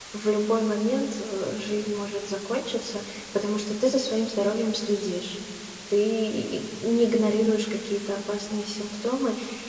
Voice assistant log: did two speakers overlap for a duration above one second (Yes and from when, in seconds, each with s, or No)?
No